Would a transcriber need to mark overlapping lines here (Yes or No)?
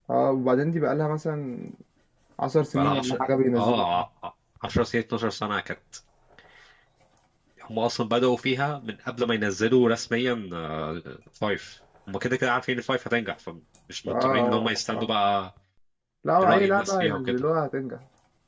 Yes